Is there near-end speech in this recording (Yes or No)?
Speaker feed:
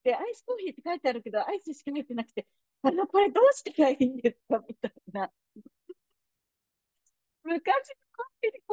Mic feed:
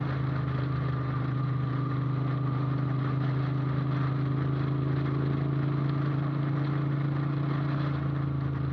No